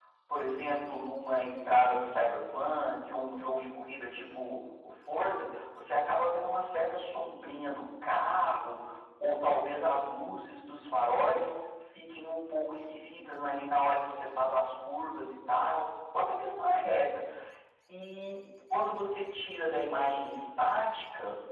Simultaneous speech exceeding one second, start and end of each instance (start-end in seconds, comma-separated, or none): none